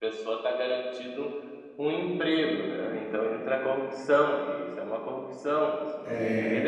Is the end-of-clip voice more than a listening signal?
No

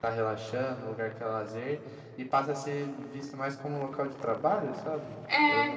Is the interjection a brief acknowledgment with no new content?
No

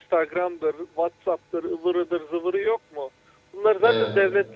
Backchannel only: Yes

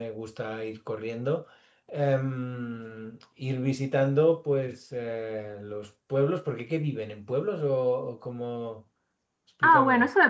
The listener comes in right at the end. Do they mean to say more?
Yes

